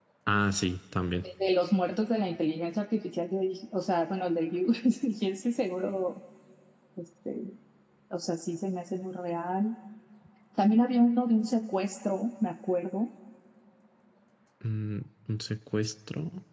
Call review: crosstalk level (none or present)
none